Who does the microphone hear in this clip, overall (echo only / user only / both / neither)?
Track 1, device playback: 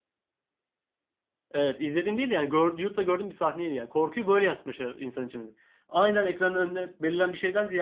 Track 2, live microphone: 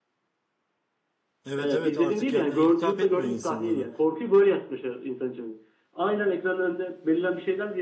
both